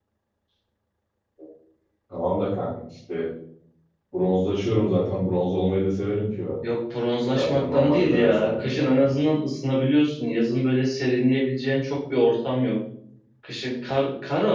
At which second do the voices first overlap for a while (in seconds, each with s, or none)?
7.3 s